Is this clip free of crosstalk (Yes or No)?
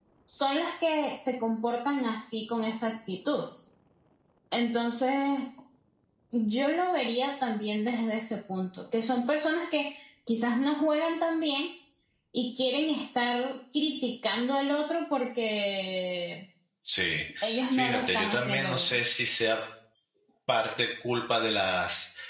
No